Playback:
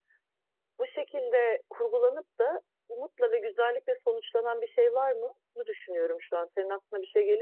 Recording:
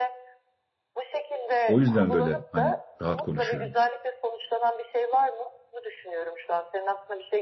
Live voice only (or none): O yüzden böyle hani rahat konuşuyorum.